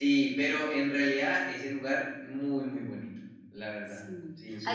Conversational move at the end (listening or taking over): taking over